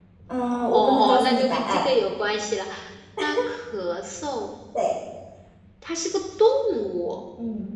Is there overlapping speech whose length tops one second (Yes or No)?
Yes